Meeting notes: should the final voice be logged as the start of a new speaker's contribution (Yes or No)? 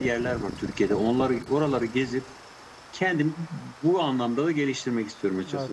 Yes